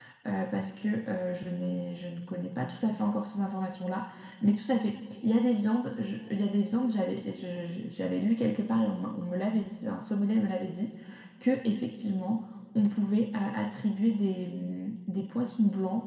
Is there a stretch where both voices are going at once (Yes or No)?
No